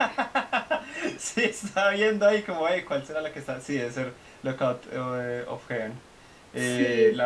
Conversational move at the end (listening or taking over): listening